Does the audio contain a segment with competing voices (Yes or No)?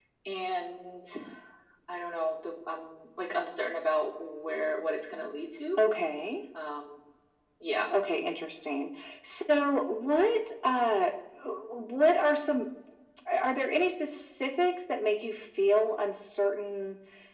No